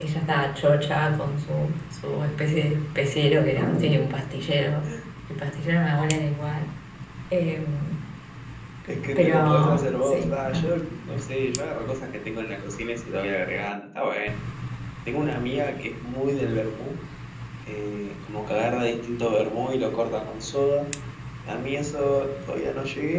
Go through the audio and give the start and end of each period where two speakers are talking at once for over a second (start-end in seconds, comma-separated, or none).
9.2-10.7